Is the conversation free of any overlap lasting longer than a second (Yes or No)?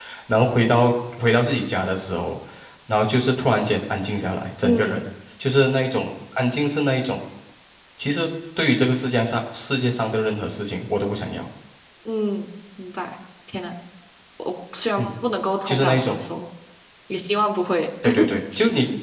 Yes